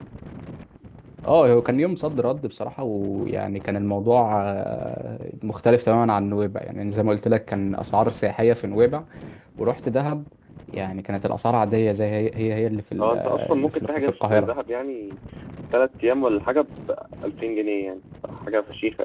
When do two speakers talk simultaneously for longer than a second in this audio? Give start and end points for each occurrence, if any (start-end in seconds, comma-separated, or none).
13.0-14.5